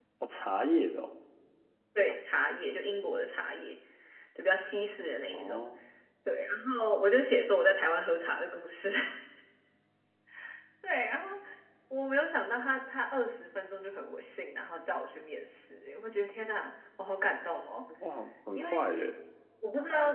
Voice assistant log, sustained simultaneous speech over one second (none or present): none